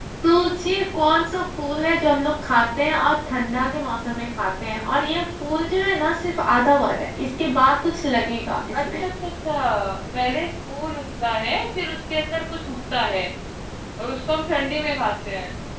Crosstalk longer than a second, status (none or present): none